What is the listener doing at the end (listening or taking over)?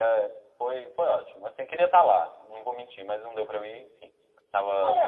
taking over